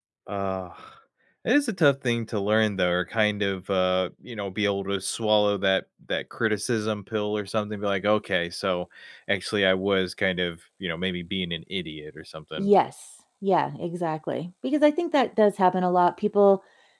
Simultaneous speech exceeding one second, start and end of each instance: none

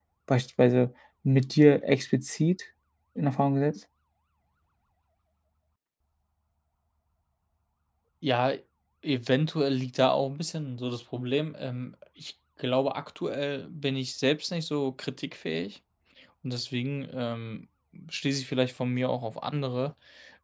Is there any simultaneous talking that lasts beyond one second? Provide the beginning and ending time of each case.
none

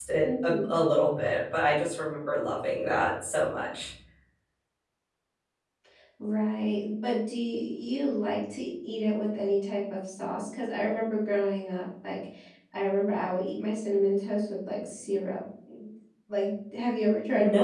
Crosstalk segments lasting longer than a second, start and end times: none

